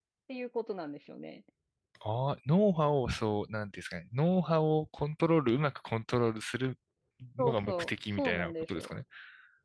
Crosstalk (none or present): present